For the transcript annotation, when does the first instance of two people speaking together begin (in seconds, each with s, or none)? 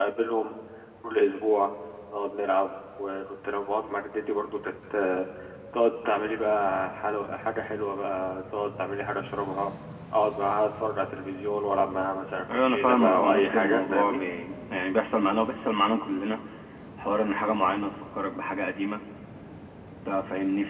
12.5 s